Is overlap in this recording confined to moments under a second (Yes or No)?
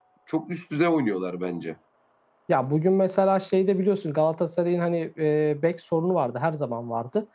Yes